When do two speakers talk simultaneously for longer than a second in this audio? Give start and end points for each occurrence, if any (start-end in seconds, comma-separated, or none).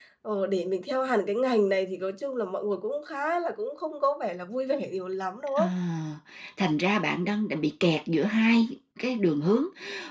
none